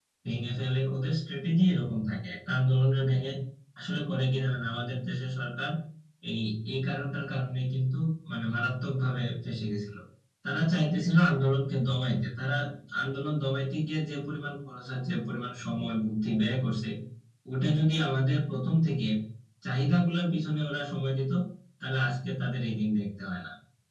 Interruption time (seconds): none

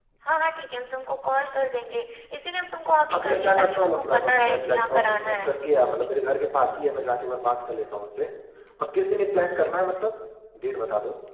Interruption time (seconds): 3.1 s

